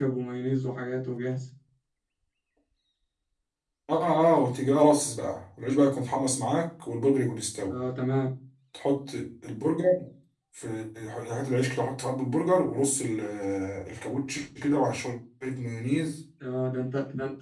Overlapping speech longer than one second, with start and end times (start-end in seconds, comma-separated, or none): none